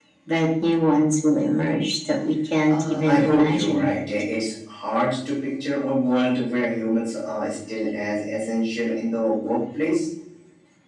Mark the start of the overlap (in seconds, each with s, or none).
2.7 s